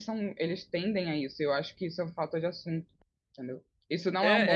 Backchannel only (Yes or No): No